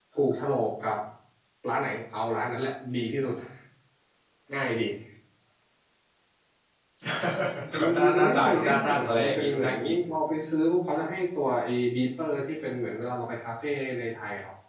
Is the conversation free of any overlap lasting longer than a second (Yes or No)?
No